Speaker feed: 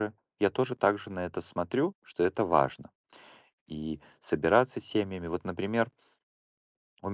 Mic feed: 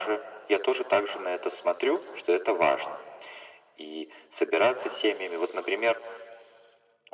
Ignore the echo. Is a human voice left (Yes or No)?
No